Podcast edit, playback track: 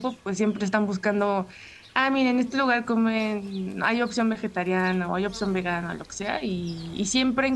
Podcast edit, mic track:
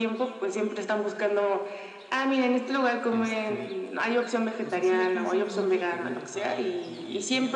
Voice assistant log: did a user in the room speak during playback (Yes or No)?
Yes